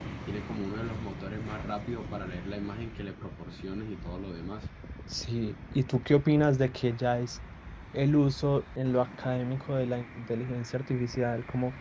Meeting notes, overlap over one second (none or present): none